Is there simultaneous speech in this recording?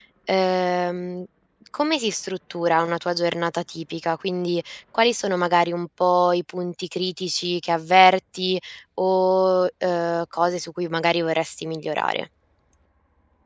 No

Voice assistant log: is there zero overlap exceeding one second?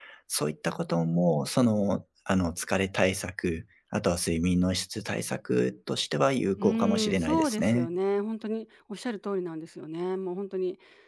No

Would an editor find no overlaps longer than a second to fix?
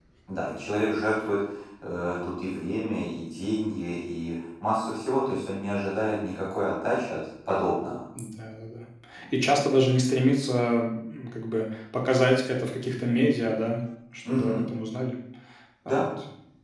Yes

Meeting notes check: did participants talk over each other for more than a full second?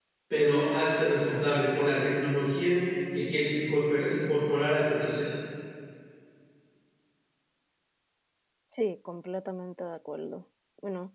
No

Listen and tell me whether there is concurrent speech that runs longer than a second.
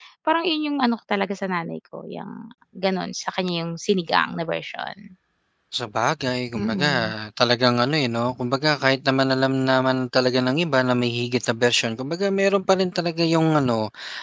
No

